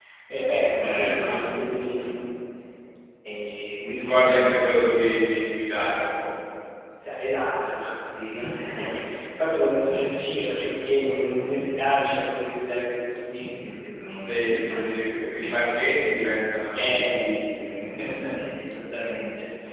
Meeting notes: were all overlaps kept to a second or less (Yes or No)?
No